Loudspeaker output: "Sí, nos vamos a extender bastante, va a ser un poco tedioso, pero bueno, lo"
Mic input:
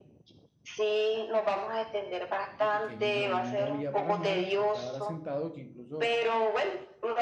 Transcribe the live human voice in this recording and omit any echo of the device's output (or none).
De pequeño yo no me movía para nada. Yo estaba era sentado que incluso